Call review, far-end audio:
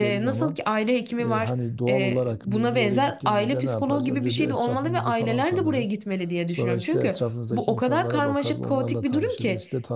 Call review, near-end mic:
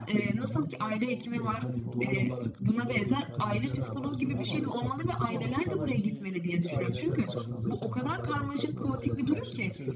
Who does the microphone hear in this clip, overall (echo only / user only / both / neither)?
both